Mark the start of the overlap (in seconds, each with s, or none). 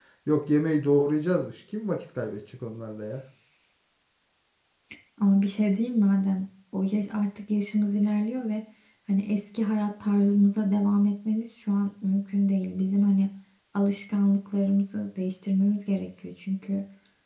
none